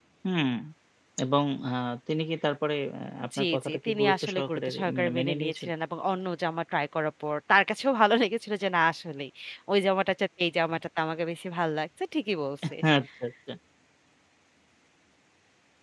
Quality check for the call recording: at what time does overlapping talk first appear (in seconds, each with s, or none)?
3.3 s